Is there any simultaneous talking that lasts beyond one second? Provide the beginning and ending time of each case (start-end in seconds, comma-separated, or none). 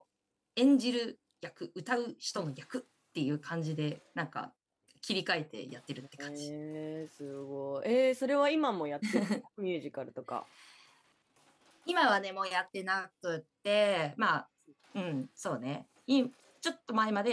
none